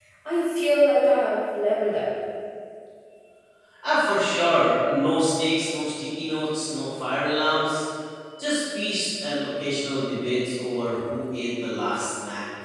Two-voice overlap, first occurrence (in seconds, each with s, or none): none